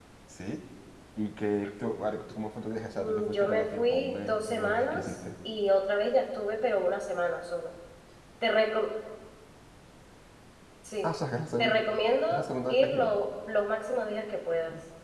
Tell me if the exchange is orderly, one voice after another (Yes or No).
No